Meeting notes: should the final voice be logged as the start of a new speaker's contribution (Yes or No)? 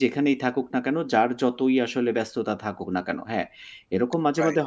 No